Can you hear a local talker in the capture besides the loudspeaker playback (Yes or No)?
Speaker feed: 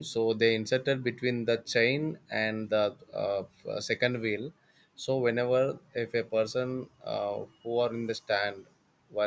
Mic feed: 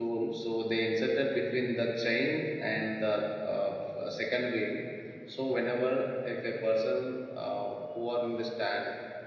No